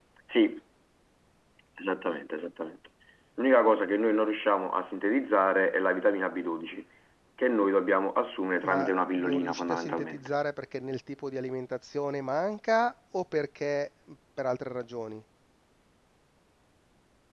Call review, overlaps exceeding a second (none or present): present